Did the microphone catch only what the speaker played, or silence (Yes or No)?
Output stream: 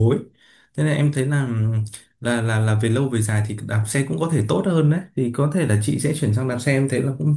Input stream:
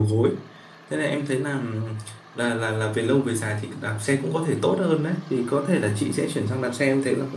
Yes